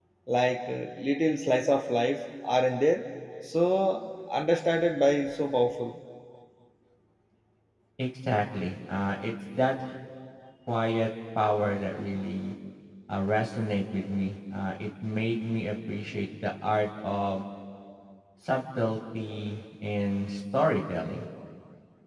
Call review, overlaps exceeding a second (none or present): none